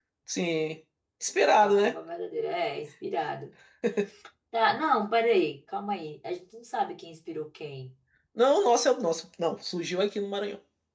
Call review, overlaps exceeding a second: none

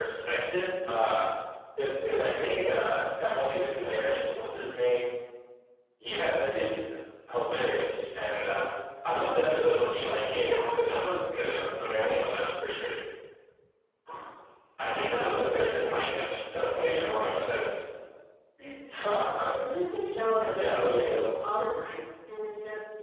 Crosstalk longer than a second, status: present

